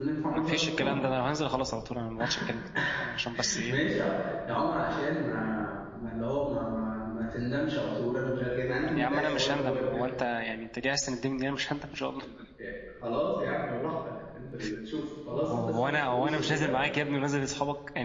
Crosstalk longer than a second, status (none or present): present